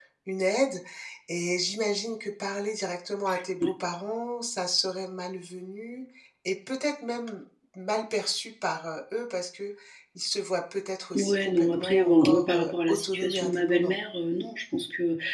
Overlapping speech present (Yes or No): Yes